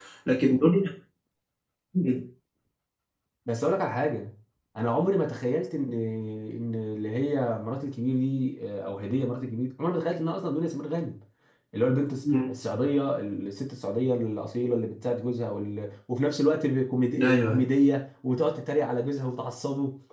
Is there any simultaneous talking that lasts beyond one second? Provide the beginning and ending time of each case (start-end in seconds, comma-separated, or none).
none